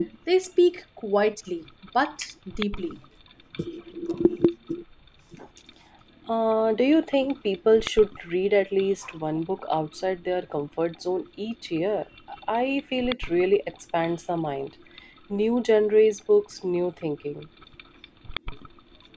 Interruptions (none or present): none